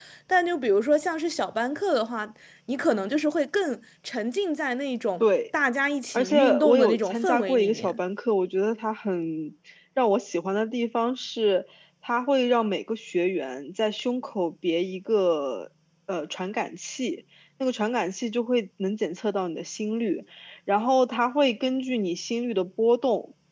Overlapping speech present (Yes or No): Yes